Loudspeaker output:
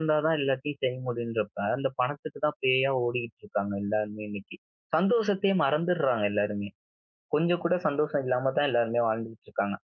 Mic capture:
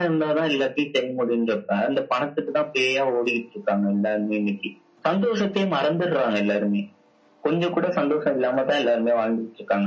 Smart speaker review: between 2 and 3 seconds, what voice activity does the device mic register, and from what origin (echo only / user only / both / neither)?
echo only